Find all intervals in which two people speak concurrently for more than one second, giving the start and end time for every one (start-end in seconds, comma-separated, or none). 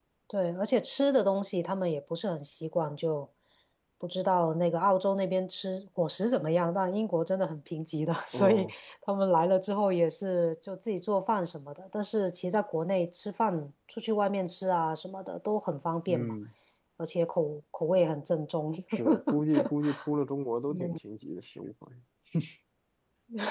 none